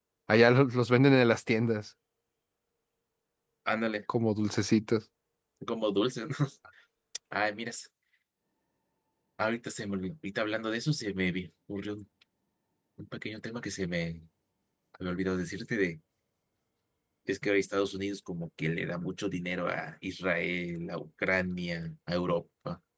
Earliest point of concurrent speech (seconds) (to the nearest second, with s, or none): none